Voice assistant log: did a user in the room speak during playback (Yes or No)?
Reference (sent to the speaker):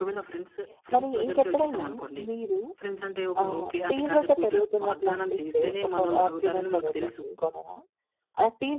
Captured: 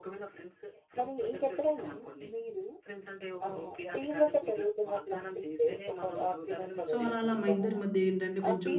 Yes